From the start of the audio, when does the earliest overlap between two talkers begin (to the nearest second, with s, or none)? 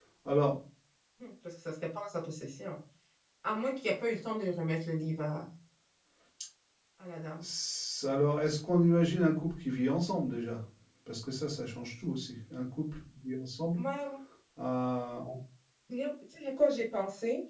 none